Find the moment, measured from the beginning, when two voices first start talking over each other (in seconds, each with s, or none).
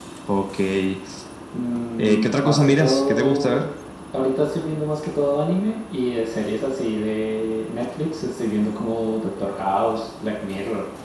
2.2 s